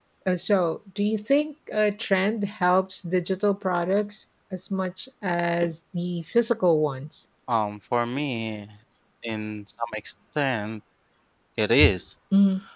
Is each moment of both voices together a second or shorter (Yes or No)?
Yes